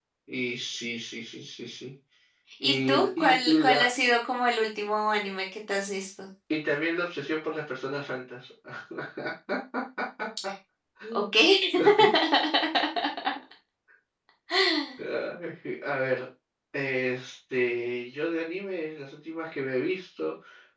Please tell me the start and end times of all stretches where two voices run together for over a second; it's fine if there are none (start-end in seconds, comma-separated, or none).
2.6-3.9